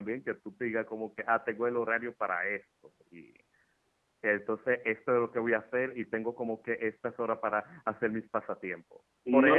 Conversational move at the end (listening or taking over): listening